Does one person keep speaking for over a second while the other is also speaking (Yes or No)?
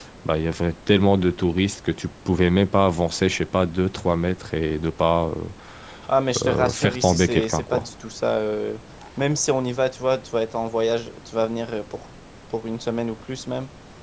Yes